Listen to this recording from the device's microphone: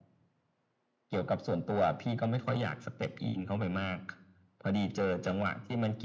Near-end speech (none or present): none